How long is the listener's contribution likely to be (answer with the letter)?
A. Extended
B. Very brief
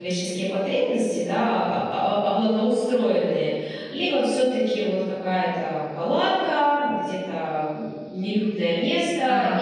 B